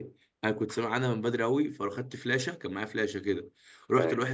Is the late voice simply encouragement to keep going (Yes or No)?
Yes